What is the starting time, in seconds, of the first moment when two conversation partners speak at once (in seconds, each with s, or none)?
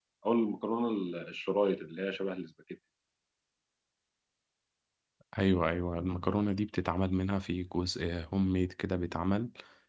none